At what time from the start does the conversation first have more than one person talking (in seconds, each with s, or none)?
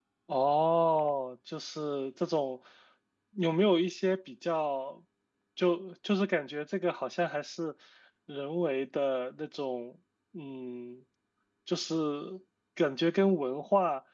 none